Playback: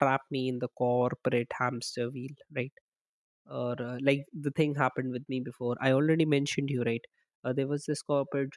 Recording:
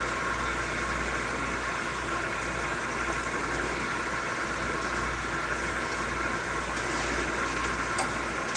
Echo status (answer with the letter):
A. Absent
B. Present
A